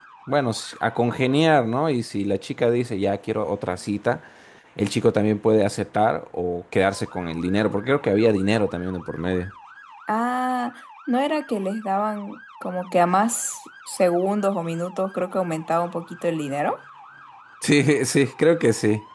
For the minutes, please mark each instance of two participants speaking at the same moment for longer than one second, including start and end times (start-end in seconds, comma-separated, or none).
none